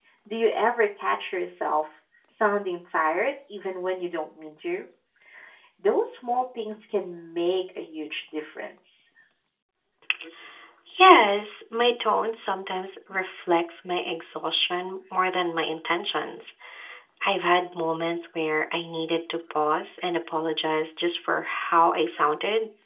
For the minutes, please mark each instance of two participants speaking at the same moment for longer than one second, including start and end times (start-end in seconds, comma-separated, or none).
none